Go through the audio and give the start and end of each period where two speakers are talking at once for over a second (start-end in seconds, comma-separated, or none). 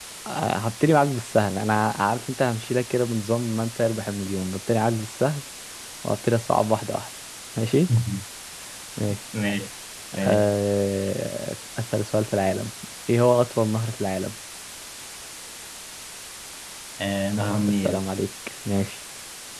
none